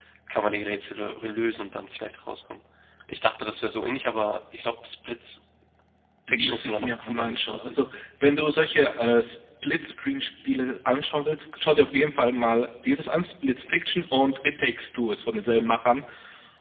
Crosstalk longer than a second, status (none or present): present